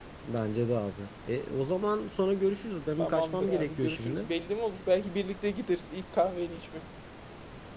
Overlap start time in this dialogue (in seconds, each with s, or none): 3.0 s